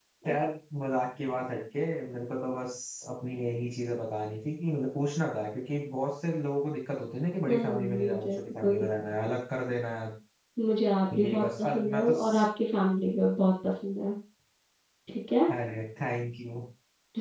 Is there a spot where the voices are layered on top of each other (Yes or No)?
Yes